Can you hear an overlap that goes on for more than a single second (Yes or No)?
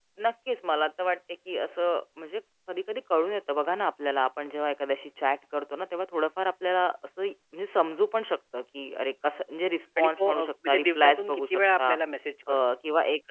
Yes